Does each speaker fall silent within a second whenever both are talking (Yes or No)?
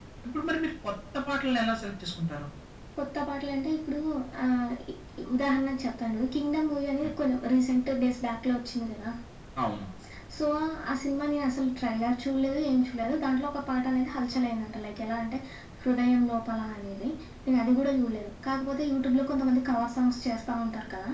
Yes